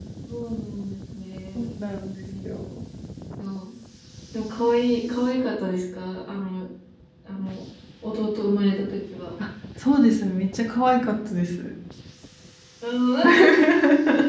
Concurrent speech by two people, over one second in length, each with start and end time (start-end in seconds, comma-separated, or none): none